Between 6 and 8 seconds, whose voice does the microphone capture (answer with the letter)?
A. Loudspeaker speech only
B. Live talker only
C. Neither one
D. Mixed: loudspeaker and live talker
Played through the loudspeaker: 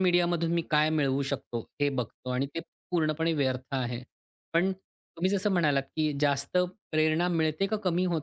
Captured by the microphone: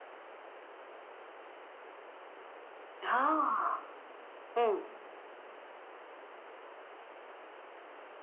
C